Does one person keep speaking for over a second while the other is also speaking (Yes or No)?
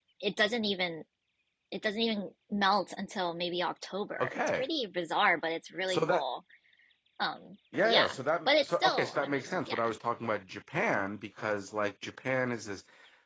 Yes